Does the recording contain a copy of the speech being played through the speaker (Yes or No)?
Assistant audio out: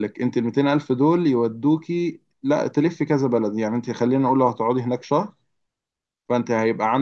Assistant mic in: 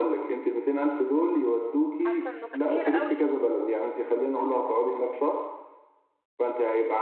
Yes